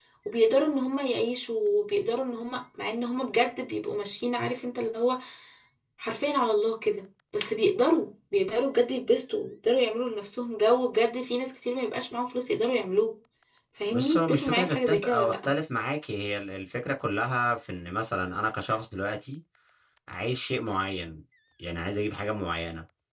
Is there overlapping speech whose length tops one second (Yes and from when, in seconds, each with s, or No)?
Yes, from 13.9 s